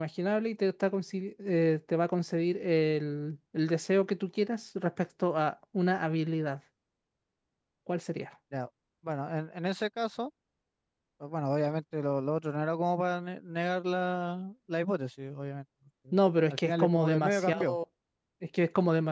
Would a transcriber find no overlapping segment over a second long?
No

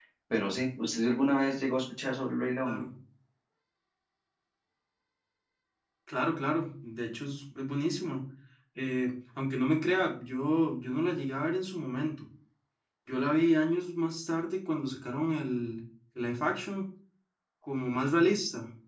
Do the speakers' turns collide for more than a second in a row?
No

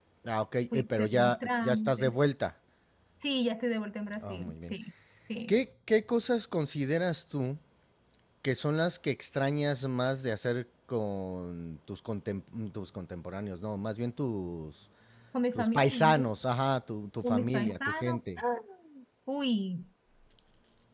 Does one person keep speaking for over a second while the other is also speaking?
Yes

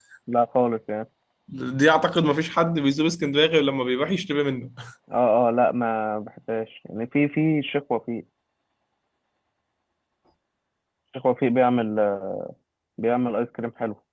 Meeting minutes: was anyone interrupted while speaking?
No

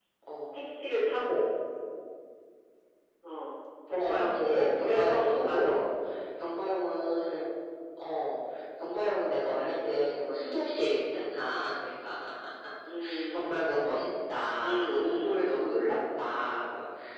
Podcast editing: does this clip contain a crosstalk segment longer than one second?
Yes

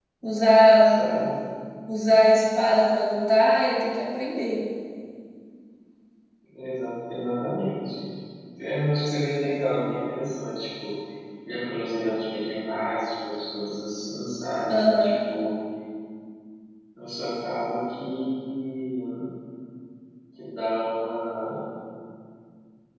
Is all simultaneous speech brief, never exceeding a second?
Yes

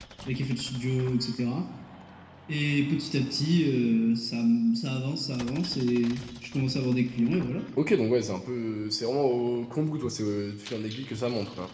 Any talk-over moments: No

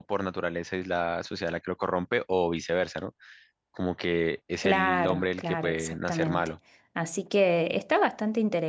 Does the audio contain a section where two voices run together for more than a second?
Yes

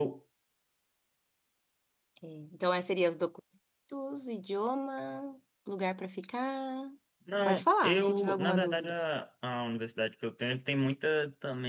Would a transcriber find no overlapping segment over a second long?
No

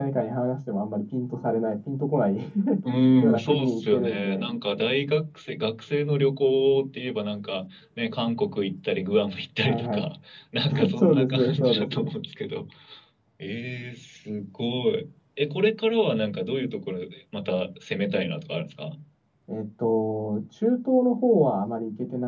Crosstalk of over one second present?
Yes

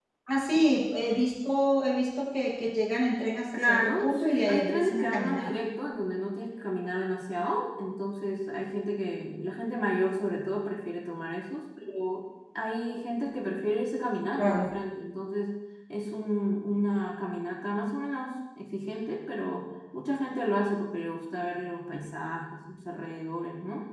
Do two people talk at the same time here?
Yes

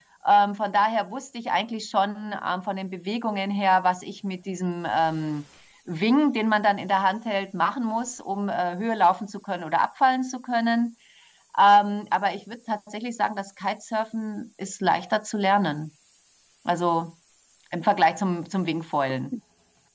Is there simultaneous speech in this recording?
No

